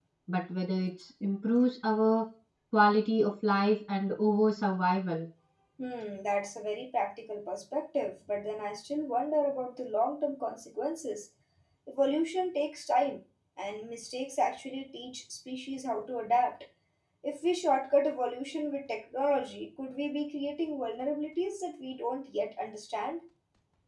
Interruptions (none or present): none